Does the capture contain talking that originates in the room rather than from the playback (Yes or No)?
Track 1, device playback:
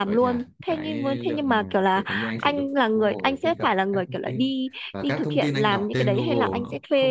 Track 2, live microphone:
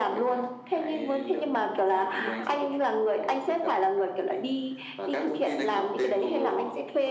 Yes